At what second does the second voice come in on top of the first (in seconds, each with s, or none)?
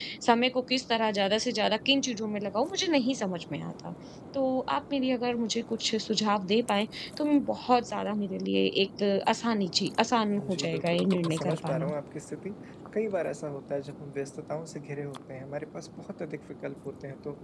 10.3 s